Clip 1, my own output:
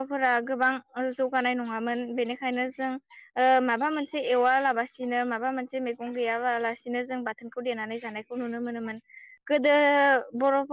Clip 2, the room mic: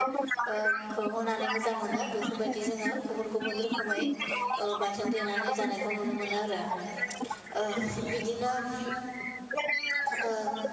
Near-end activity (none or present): present